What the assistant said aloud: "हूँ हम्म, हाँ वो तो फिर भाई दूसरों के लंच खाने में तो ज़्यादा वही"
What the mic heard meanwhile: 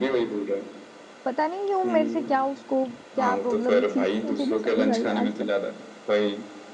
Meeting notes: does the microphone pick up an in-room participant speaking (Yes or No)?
Yes